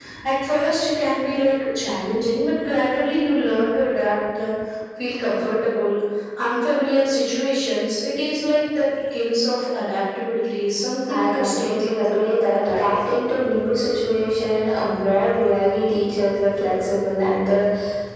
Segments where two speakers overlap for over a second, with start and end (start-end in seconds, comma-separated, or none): 11.1-12.9